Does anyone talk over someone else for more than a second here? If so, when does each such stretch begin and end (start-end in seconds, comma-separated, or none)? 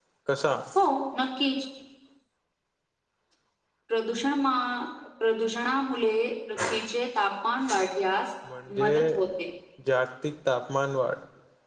none